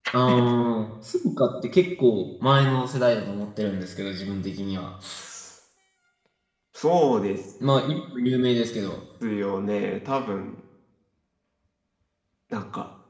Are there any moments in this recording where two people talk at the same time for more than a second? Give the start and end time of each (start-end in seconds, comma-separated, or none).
none